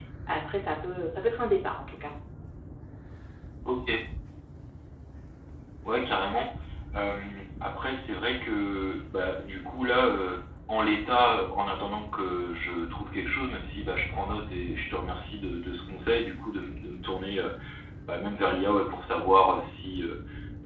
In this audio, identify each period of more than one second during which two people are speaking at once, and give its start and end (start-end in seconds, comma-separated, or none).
none